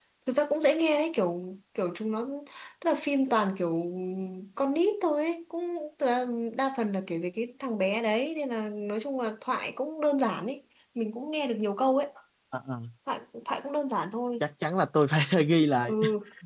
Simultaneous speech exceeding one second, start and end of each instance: none

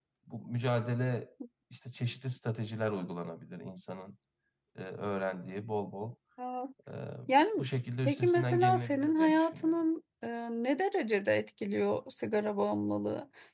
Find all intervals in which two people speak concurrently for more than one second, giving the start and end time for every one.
8.0-9.8

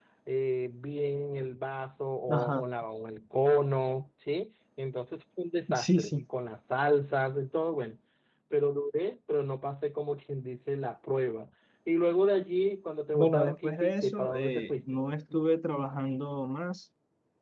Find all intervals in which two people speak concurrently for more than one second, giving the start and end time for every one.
13.1-14.8

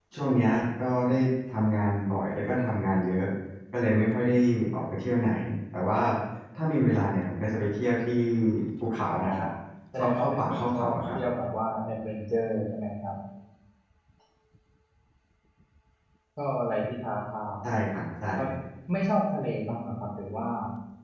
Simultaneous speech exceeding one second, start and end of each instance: 10.0-11.2

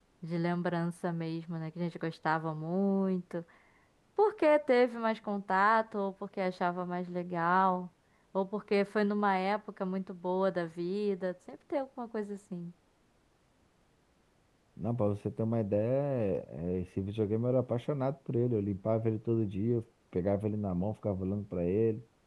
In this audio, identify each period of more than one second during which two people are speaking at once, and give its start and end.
none

